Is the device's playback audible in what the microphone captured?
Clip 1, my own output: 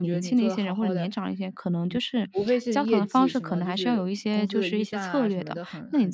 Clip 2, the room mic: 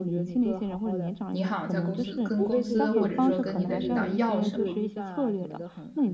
Yes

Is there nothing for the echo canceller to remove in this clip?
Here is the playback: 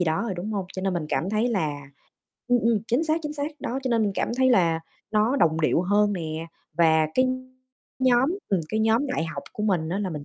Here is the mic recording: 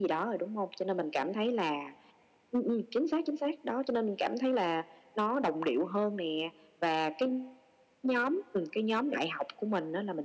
No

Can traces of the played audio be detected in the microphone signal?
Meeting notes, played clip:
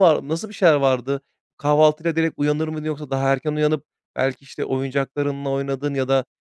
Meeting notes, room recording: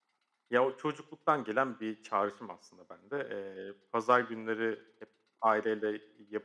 No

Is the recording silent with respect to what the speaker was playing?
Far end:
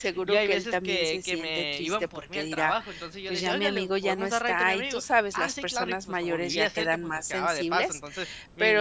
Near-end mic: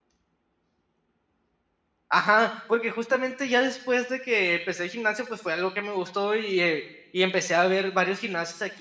Yes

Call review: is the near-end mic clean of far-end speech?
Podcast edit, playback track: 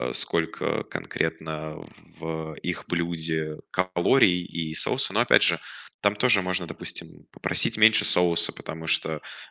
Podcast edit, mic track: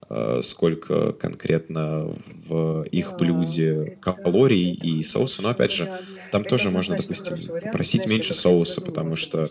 No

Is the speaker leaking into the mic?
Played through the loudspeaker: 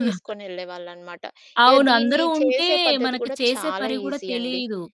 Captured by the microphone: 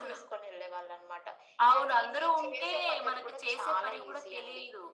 Yes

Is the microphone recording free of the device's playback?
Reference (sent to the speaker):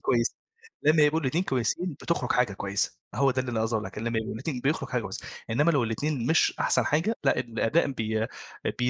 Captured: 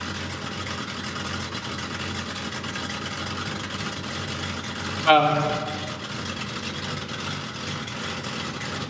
Yes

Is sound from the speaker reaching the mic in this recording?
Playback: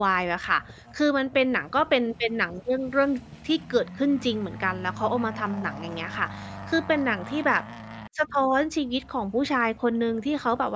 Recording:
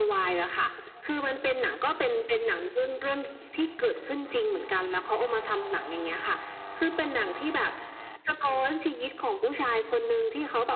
Yes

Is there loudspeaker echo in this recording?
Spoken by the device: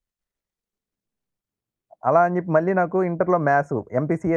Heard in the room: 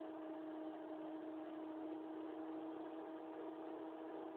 No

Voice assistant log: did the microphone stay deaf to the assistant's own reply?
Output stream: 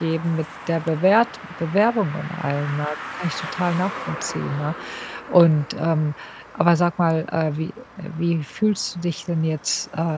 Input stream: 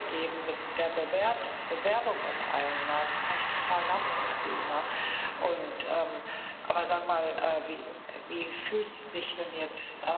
No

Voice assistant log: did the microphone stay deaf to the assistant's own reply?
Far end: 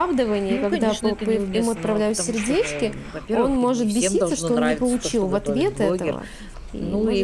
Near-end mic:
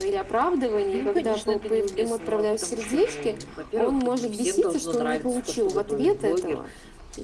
No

